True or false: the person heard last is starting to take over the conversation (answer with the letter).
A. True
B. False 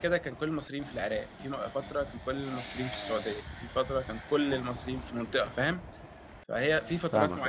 B